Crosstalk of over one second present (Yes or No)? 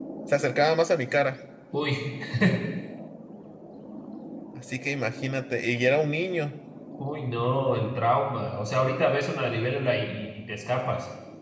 No